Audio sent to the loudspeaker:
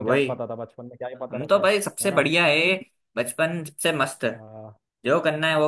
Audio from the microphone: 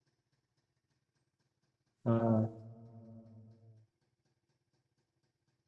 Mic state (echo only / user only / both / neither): user only